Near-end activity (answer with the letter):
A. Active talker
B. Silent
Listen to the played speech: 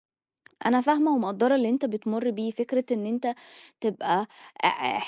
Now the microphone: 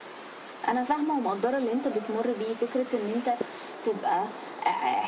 B